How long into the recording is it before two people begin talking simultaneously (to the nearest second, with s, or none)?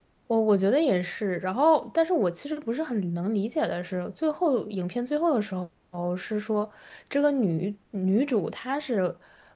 none